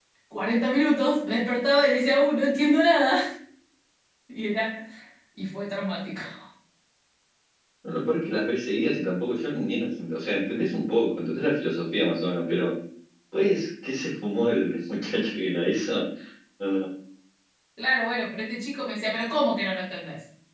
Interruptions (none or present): none